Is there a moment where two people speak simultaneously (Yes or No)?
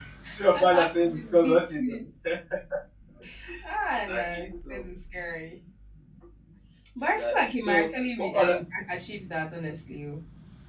Yes